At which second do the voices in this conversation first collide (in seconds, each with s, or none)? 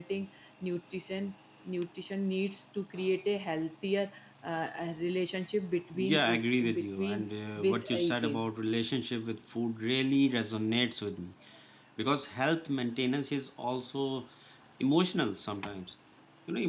5.9 s